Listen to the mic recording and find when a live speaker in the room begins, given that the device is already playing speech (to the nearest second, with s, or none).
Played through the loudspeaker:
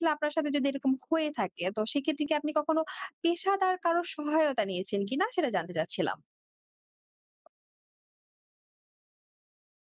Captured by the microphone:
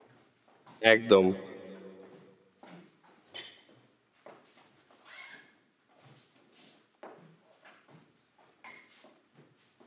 1 s